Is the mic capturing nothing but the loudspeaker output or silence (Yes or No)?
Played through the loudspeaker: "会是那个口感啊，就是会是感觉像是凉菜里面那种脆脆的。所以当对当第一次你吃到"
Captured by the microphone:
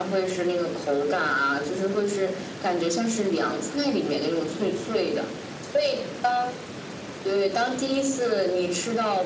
Yes